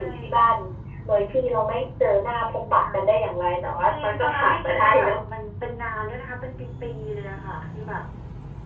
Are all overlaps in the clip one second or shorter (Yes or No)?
No